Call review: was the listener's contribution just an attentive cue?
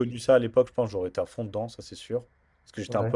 Yes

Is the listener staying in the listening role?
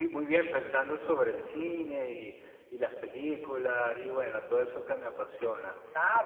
No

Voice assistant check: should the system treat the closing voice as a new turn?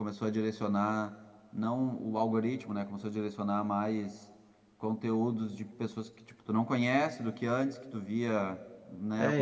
Yes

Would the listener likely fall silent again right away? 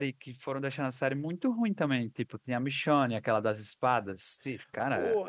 No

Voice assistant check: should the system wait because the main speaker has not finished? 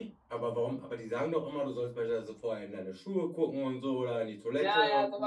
No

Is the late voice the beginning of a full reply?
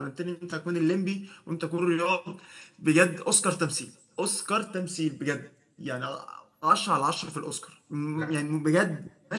No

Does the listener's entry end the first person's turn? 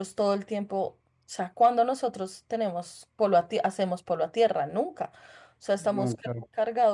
No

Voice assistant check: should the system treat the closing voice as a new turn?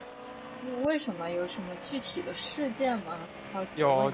Yes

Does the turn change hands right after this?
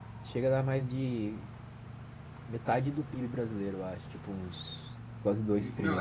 Yes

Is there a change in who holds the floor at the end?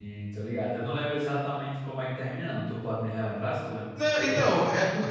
Yes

